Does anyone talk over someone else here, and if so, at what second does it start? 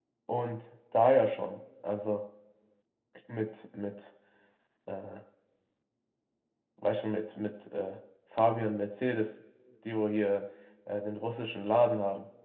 none

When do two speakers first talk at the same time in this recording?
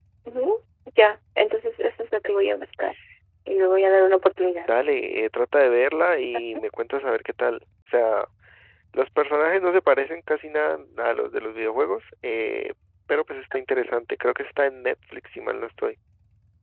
none

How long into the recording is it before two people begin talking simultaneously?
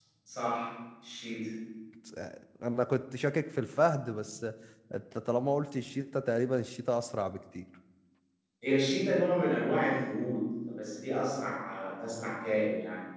none

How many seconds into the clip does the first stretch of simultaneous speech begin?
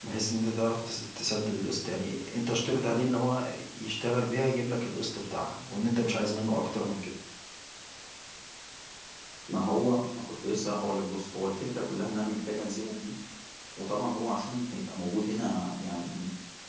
none

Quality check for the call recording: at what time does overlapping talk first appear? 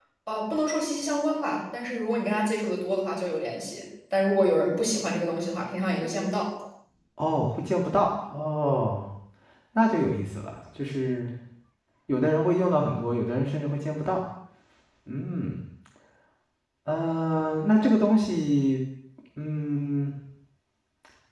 none

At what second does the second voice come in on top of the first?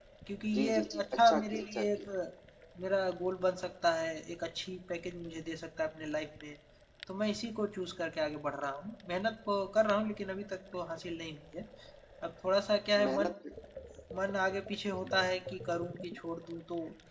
1 s

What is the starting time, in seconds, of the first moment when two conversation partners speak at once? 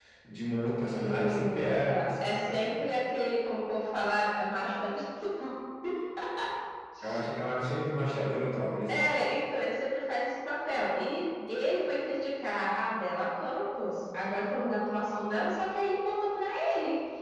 1 s

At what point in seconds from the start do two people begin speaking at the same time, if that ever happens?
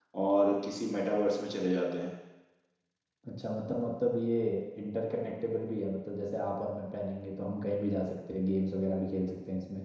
none

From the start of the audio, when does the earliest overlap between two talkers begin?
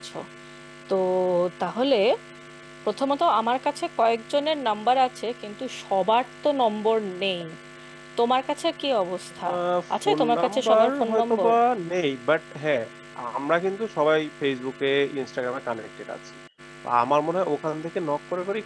10 s

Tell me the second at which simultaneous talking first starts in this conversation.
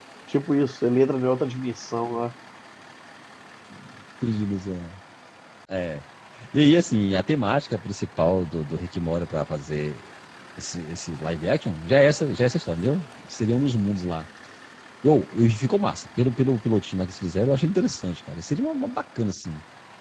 none

